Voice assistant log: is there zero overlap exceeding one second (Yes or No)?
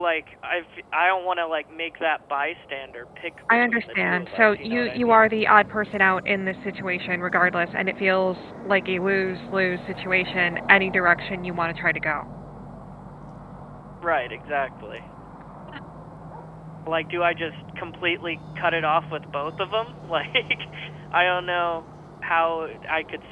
No